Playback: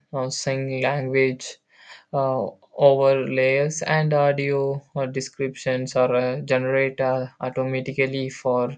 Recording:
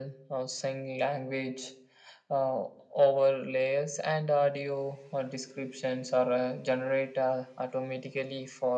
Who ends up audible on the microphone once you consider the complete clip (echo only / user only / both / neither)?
echo only